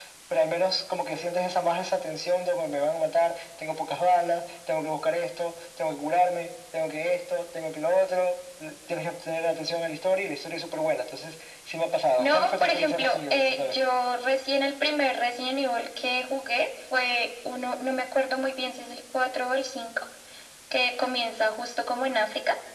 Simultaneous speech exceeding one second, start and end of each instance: 12.2-13.8

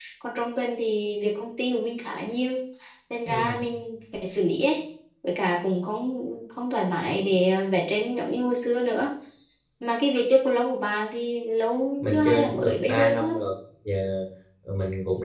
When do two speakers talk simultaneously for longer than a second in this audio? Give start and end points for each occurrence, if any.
12.0-13.3

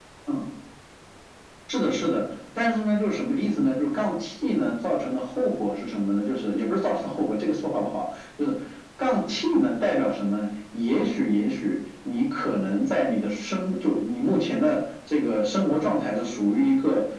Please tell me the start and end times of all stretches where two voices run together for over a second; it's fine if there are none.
none

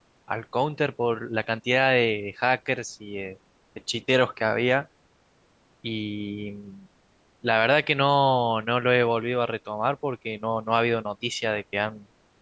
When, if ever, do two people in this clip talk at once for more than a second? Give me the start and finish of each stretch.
none

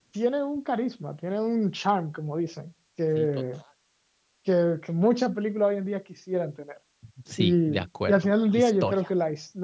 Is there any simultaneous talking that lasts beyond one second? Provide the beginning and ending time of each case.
7.4-9.0

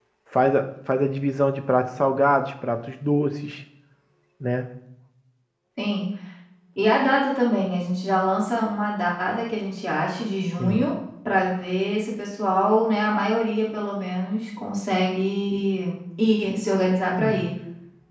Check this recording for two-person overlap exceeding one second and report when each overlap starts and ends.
none

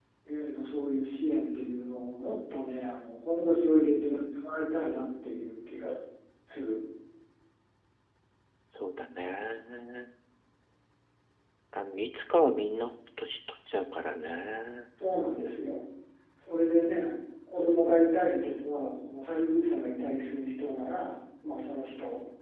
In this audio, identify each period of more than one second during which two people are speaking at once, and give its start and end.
none

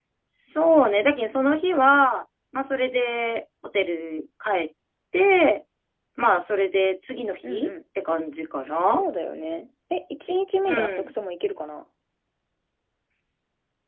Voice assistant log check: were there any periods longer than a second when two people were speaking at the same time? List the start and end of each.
none

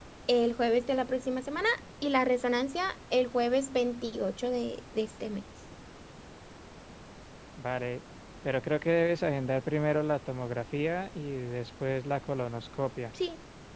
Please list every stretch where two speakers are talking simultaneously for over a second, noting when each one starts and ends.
none

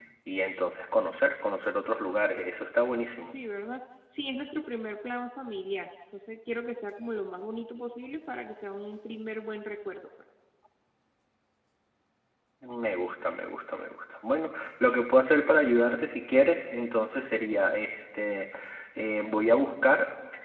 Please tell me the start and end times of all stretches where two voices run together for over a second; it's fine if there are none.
none

